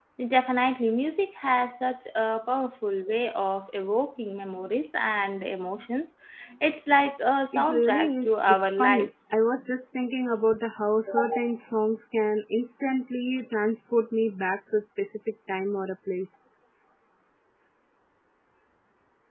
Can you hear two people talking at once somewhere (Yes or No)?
Yes